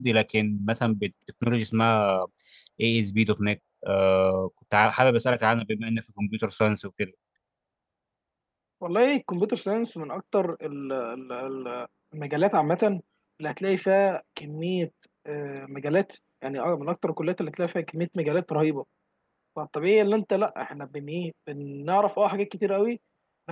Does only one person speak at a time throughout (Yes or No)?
Yes